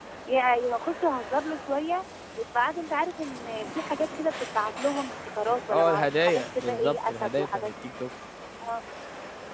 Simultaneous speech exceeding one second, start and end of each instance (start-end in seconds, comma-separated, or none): 5.7-7.7